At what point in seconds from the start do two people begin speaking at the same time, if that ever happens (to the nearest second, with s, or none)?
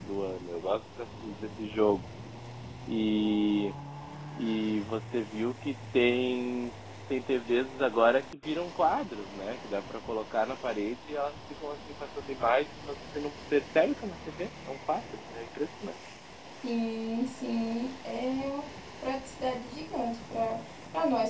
none